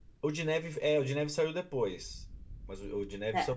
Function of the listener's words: listening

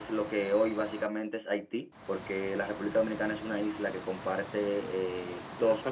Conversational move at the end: taking over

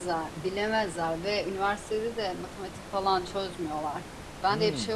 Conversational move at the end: listening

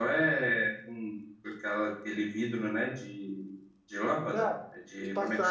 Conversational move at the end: taking over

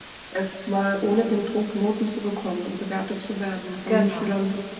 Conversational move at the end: listening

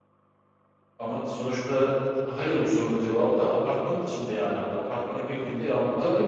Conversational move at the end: taking over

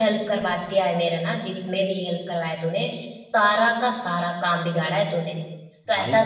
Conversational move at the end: listening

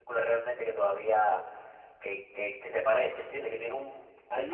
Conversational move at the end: taking over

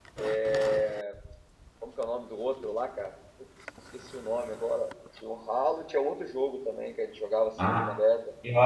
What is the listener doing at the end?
taking over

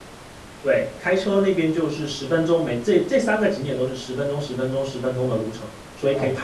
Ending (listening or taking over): taking over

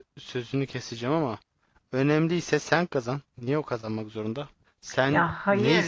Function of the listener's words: listening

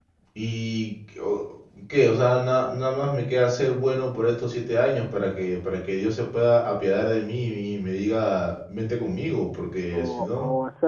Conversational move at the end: taking over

